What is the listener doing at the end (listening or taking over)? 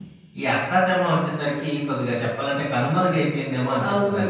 taking over